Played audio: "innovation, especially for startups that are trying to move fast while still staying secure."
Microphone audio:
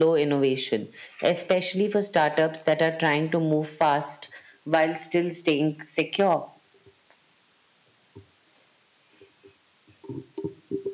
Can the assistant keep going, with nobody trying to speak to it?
Yes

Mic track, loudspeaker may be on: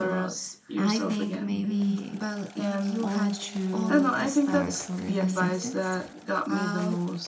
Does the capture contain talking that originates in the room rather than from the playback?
Yes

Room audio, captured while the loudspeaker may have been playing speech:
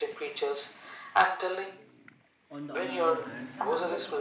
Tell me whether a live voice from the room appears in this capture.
Yes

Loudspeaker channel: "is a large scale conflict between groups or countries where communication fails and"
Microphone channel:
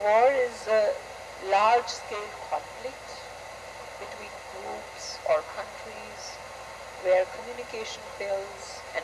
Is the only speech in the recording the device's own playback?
Yes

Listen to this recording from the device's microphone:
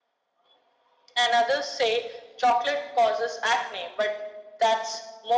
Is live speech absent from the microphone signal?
Yes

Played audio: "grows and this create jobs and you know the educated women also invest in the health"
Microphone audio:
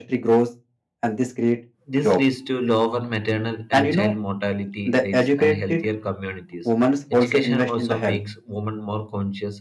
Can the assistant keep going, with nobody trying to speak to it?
No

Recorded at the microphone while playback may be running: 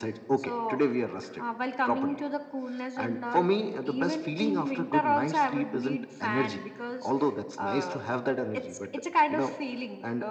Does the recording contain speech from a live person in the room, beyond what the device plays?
No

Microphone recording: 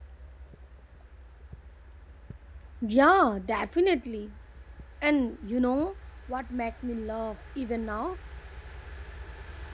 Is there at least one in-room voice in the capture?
Yes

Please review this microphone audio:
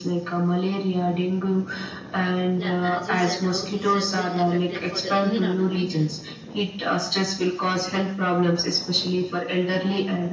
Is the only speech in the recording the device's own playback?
No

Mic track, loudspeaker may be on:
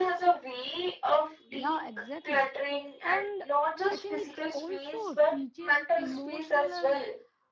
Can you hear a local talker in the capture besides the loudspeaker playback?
Yes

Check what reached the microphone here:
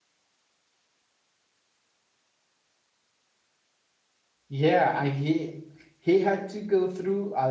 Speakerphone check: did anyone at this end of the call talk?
Yes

